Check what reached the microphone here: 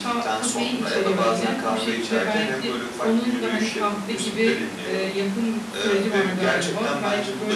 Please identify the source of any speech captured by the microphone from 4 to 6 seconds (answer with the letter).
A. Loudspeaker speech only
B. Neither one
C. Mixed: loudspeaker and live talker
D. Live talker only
A